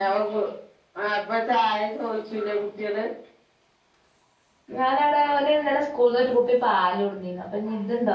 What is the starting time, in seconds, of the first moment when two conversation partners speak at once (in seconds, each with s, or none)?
none